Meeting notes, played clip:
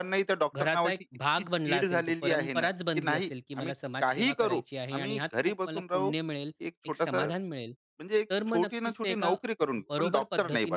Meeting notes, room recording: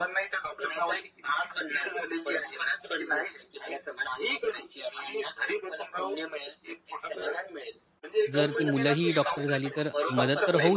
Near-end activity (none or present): present